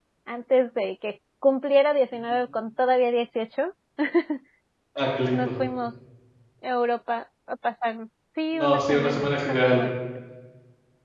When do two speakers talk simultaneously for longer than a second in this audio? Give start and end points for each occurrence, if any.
8.6-9.9

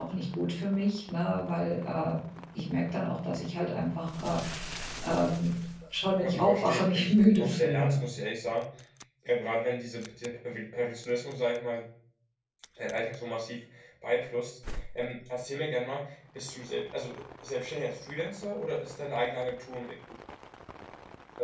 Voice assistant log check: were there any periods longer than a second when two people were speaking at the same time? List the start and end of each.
6.2-8.0

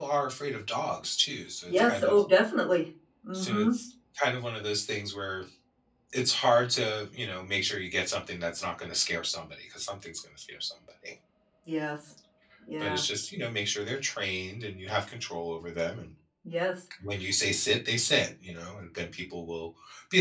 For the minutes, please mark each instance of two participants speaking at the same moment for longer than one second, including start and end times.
none

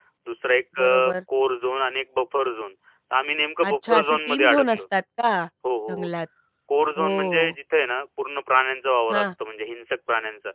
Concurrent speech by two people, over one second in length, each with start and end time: 3.6-4.8

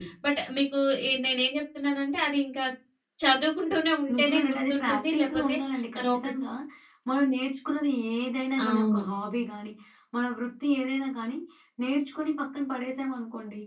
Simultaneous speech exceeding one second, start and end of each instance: 4.1-5.5

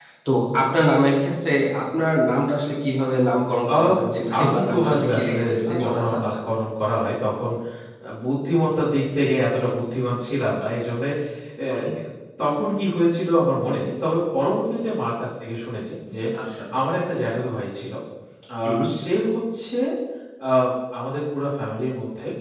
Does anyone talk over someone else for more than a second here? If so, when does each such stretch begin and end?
4.4-6.4

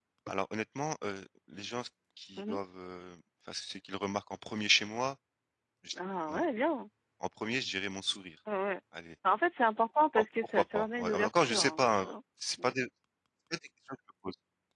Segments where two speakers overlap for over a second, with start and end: 10.1-12.1

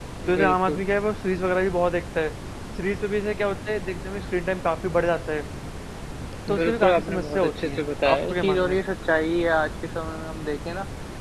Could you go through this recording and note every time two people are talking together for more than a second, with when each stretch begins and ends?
6.6-8.8

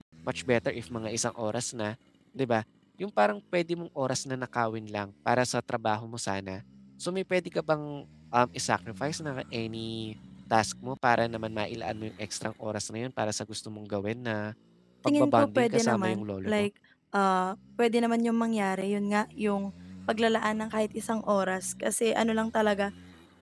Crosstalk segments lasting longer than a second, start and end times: 15.1-16.6

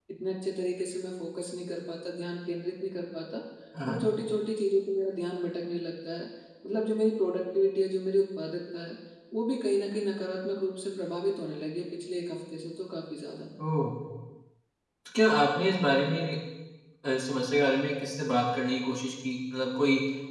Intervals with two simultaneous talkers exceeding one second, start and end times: none

